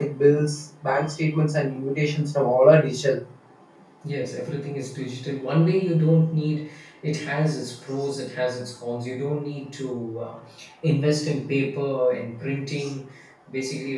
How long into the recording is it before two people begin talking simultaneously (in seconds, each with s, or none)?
none